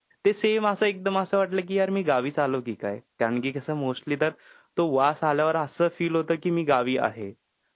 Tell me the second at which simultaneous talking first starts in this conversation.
none

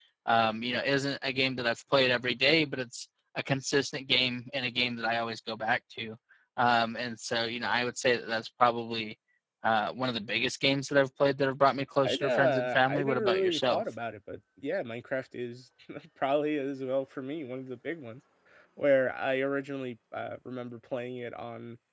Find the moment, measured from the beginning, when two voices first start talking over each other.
12.0 s

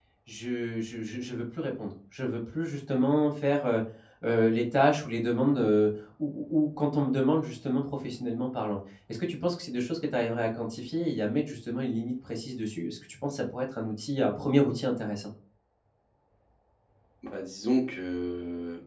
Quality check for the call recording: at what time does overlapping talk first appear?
none

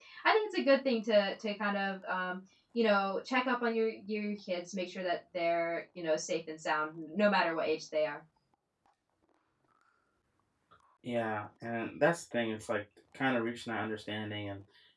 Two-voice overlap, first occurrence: none

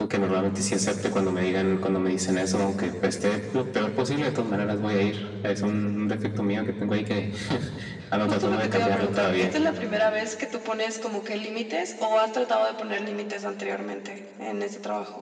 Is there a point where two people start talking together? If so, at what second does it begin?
8.2 s

